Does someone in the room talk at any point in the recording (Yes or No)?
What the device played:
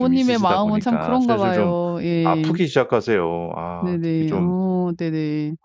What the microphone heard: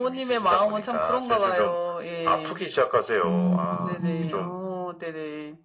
Yes